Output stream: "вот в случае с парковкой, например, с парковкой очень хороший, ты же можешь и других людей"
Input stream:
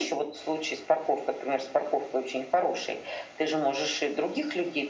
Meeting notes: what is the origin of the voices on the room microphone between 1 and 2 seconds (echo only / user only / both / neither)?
echo only